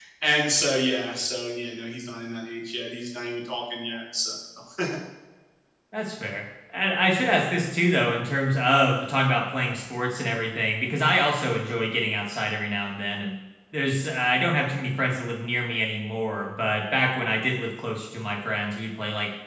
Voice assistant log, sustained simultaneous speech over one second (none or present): none